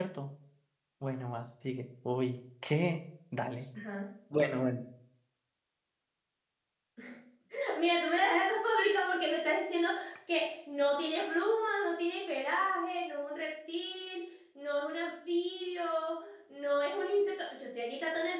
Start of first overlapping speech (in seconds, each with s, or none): none